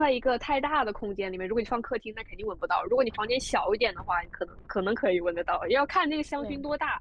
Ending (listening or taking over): listening